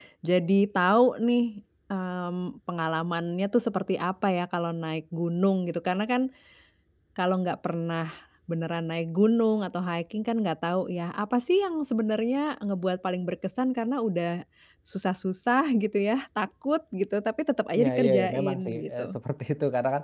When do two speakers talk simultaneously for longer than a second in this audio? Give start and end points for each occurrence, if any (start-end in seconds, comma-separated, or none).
17.8-19.2